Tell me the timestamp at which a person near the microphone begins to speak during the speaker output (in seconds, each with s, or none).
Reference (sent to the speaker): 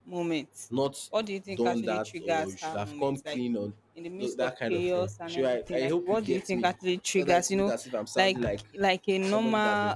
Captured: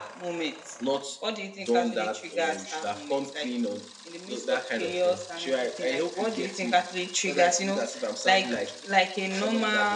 none